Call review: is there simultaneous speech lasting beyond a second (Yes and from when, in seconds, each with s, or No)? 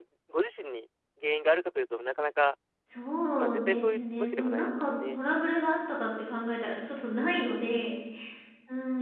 Yes, from 3.4 s